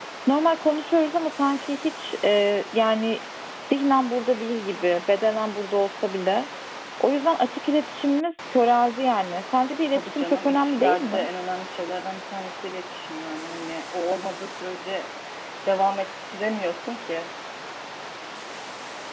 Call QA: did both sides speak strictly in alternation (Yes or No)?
No